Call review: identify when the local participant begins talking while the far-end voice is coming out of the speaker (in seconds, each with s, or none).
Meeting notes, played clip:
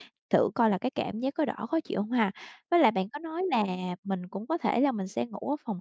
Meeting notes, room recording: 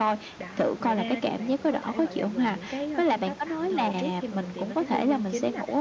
0.4 s